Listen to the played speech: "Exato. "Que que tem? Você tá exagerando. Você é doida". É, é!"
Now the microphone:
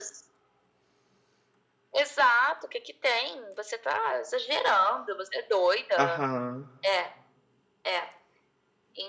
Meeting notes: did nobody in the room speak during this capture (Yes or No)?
No